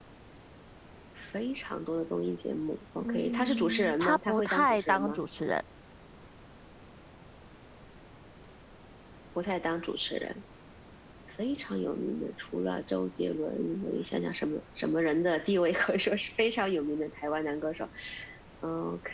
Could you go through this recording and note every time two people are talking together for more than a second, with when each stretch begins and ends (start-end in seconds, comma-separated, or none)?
3.0-5.2